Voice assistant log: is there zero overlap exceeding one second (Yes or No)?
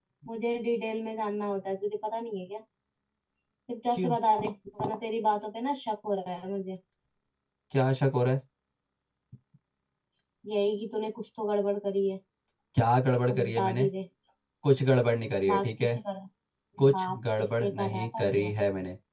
No